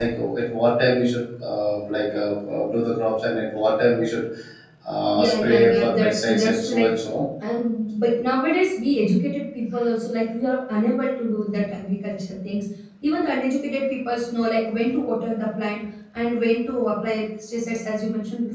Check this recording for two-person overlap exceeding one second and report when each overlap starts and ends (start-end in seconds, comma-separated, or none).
5.2-6.9